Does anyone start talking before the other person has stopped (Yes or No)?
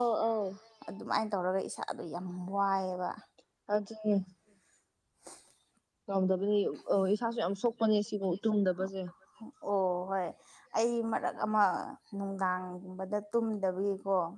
No